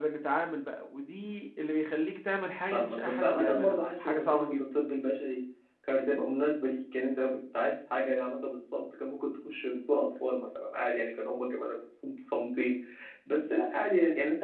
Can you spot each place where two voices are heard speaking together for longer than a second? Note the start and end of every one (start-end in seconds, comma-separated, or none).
2.7-4.6